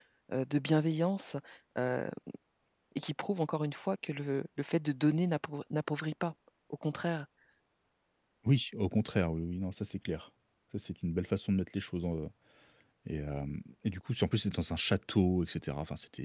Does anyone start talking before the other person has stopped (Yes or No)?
No